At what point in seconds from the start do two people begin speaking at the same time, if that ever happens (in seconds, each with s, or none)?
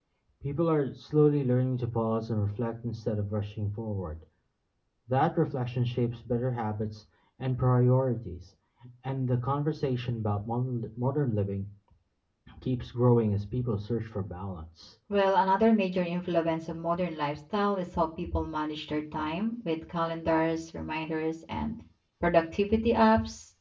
none